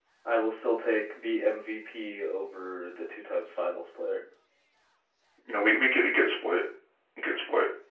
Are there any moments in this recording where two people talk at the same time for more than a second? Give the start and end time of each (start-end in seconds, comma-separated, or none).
none